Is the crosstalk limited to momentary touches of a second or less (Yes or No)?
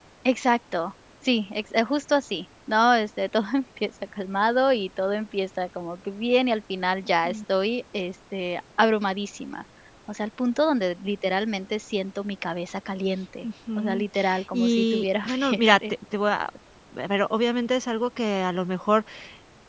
No